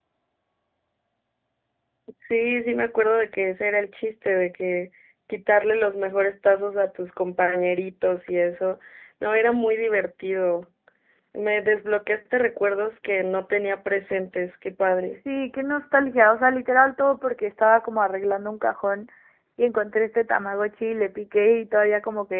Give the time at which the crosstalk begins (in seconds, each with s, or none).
none